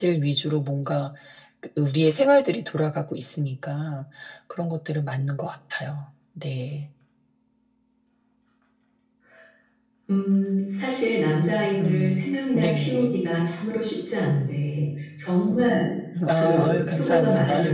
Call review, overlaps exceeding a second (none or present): present